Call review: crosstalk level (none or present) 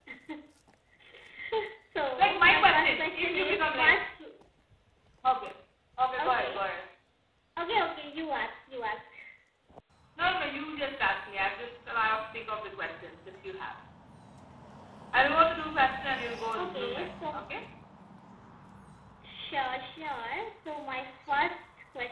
present